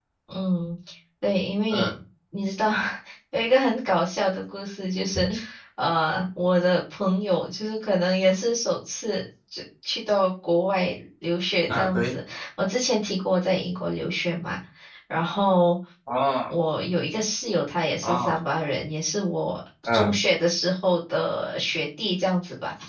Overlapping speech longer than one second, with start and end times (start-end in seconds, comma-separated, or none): none